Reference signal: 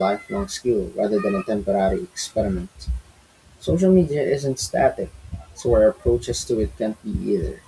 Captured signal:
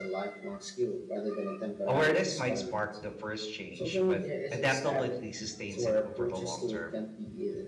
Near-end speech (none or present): present